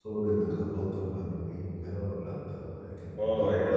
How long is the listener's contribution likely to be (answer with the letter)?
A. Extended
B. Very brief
A